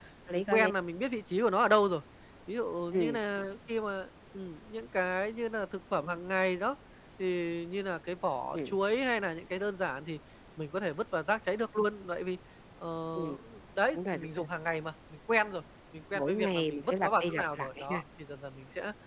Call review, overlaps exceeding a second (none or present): present